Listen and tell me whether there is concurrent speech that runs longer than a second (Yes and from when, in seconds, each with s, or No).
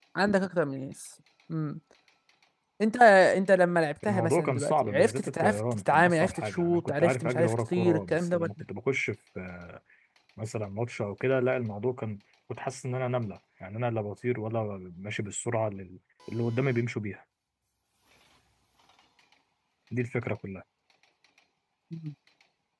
Yes, from 4.1 s